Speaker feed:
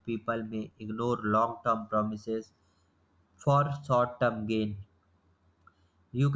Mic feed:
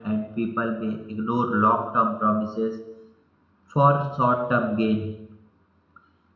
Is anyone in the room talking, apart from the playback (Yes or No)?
No